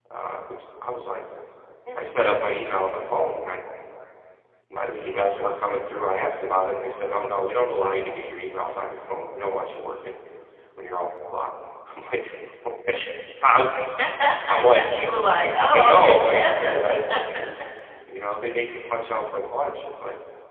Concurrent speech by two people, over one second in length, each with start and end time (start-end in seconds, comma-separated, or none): 15.7-16.9